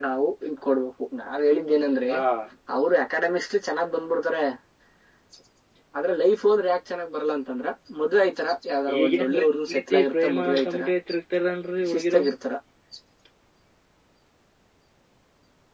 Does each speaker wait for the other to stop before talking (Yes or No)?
No